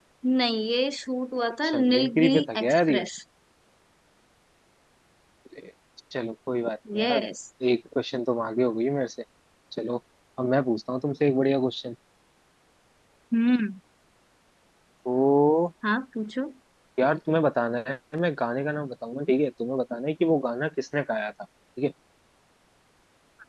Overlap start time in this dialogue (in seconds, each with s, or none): 1.6 s